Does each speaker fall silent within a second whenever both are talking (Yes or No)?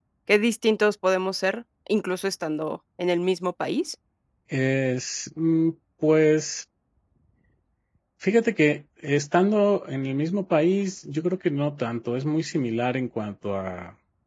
Yes